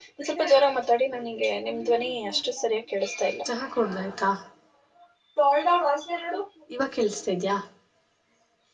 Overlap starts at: none

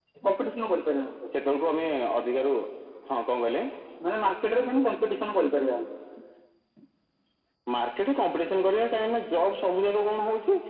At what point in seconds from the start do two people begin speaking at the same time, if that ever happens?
none

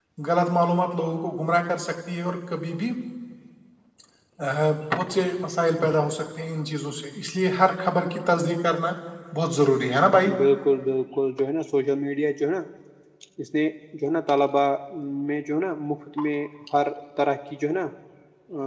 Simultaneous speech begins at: none

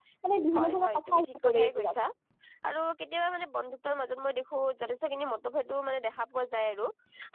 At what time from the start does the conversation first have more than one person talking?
1 s

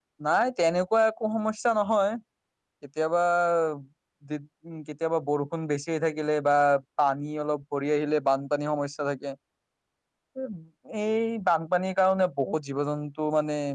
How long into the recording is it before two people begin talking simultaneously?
none

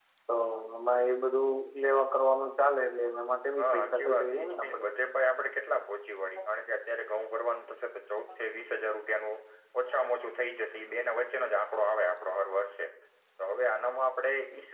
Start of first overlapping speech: 4 s

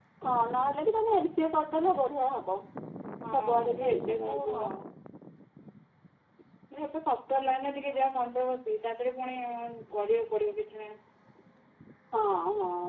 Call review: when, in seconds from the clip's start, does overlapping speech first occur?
3 s

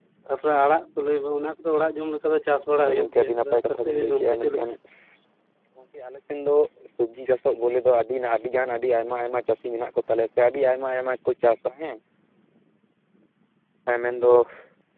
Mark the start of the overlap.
3 s

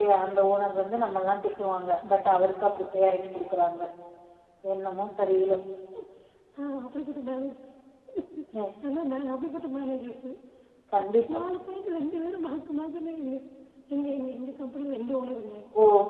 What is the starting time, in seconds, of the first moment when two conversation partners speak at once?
none

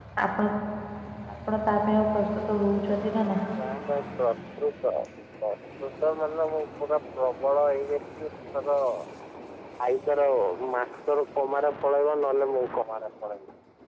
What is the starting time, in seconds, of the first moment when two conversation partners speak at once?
none

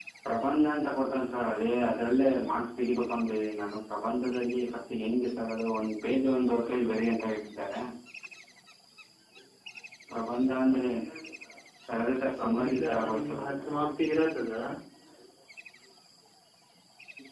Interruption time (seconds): 12 s

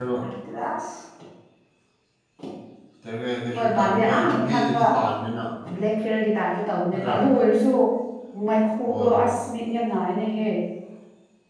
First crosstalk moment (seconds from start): 4 s

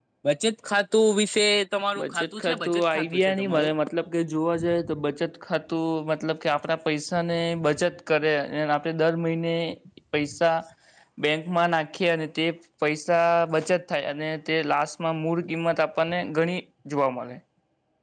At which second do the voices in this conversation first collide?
2 s

